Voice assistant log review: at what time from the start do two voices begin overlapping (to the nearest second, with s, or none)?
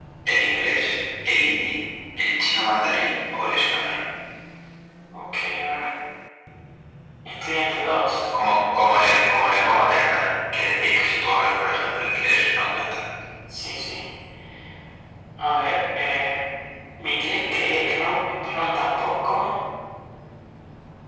none